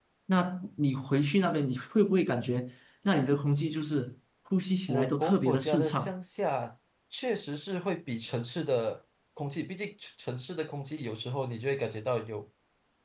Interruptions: present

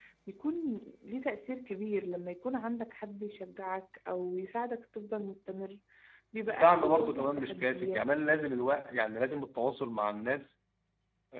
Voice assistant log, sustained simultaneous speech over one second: present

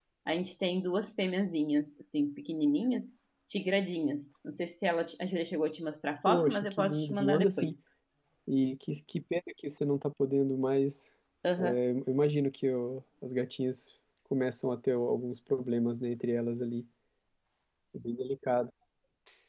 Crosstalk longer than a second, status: present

